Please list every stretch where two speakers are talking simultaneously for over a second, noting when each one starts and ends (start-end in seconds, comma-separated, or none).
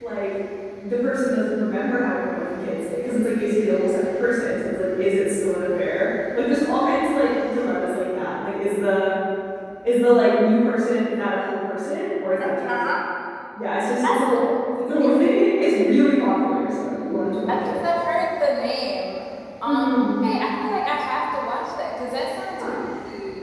none